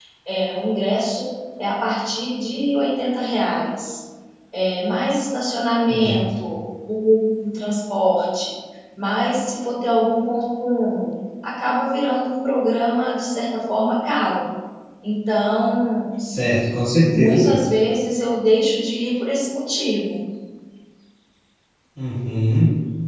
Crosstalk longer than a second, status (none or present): none